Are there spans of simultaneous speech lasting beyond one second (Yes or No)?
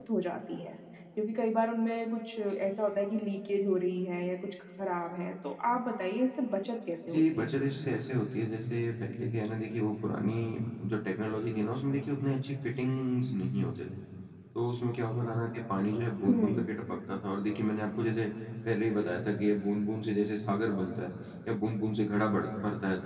No